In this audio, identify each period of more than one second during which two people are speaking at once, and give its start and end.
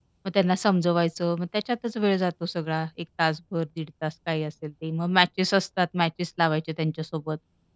none

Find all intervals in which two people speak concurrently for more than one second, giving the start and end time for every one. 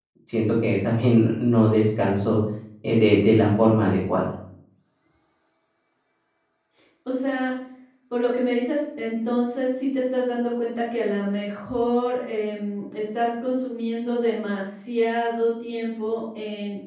none

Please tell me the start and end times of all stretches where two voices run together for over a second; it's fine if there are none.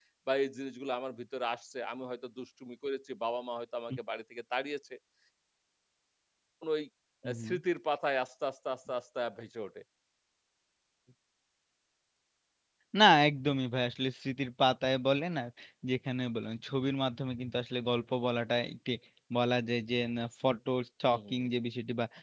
none

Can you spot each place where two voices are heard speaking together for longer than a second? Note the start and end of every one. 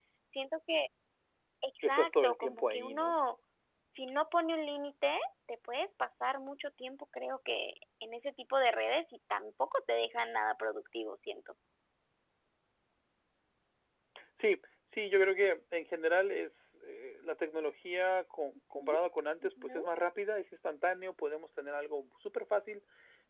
1.8-3.2

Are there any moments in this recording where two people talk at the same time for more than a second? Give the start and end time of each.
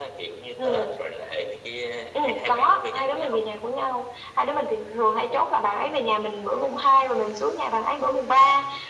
2.1-3.4

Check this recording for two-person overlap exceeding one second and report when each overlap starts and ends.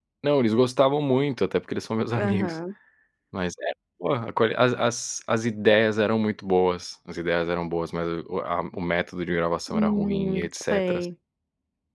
9.7-11.0

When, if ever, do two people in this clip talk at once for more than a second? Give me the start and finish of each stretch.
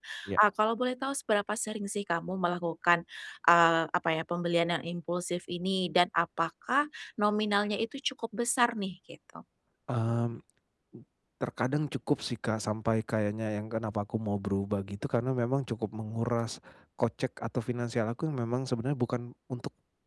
none

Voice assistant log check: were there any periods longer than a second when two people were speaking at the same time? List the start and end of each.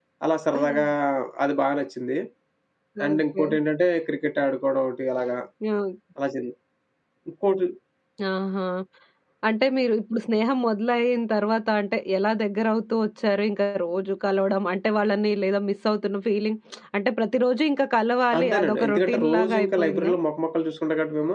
18.4-20.1

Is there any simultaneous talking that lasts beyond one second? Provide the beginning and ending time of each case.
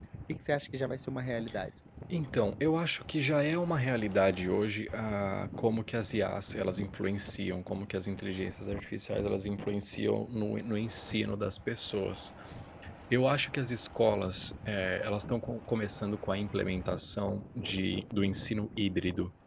none

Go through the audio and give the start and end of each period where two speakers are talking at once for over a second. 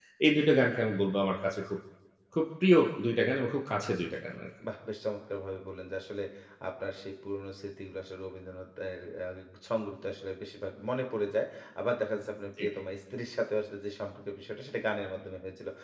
none

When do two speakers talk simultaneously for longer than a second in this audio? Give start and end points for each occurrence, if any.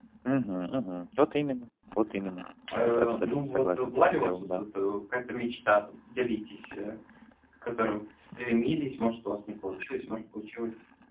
2.7-4.6

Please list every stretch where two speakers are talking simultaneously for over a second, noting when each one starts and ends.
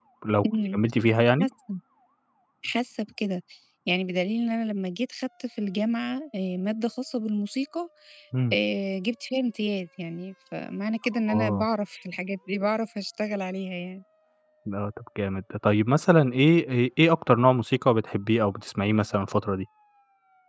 none

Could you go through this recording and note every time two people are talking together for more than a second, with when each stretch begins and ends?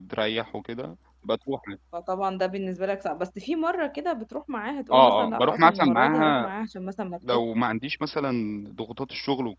4.9-6.5

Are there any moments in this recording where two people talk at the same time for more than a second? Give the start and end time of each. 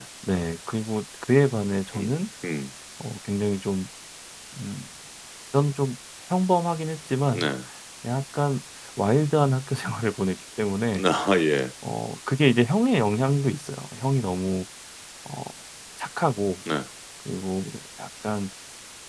none

